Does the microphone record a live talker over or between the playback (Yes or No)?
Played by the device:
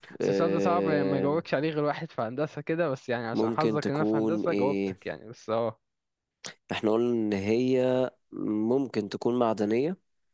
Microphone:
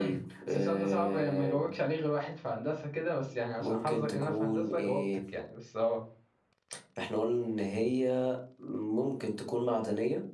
No